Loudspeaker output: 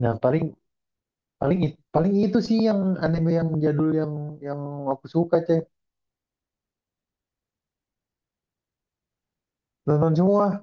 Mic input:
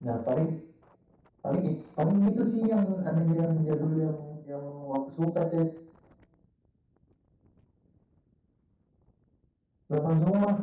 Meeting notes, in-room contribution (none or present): none